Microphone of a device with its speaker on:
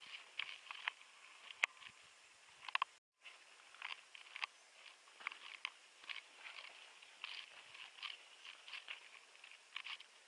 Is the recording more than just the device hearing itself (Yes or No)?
No